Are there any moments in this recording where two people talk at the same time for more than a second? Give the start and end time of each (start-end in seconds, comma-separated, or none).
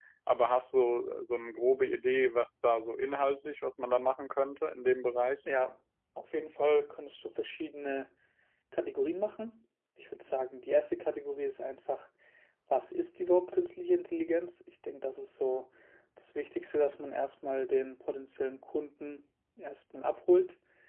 none